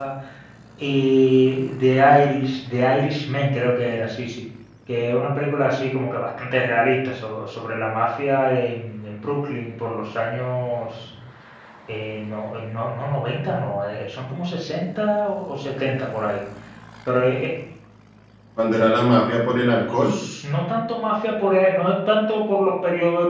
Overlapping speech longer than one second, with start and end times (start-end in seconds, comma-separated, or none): none